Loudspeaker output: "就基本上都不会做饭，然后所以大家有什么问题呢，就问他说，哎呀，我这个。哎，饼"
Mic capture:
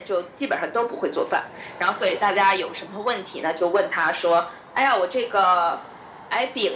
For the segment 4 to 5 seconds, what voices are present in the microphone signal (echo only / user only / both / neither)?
echo only